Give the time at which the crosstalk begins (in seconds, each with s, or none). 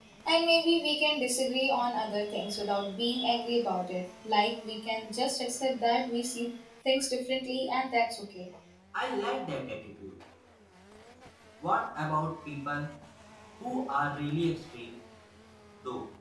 none